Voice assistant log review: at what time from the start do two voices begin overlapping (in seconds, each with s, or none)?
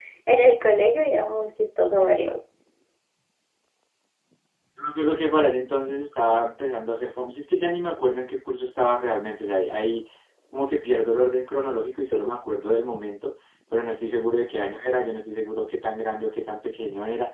none